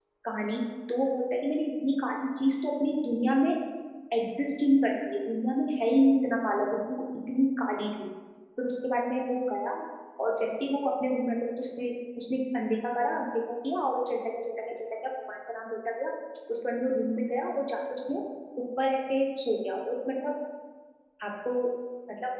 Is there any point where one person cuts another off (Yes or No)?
No